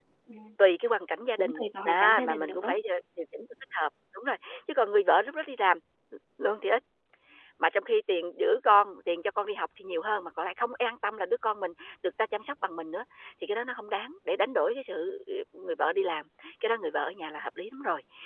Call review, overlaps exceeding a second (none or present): present